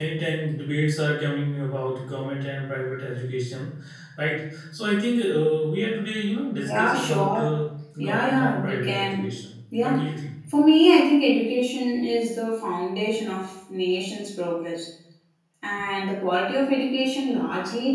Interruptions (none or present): present